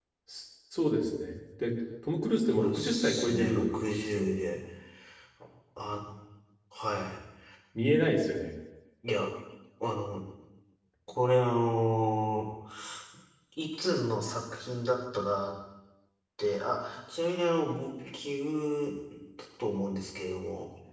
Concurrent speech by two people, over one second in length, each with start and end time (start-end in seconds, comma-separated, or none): 2.6-4.3